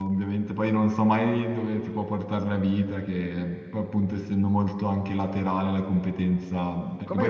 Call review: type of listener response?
taking over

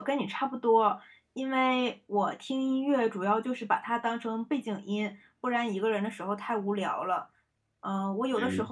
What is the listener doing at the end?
listening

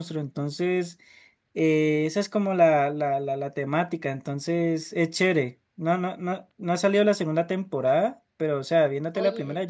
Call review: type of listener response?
listening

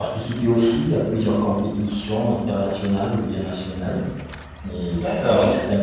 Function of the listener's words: listening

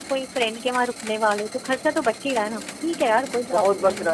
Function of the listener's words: taking over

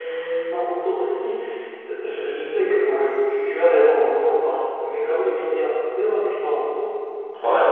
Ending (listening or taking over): listening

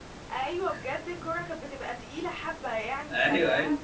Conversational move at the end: listening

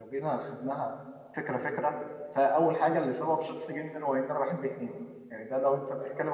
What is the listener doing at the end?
listening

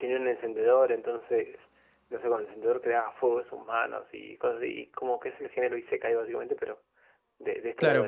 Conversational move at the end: taking over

